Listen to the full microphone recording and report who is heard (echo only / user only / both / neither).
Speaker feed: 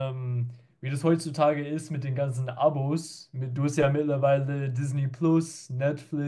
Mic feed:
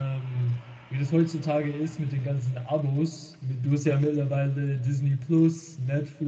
echo only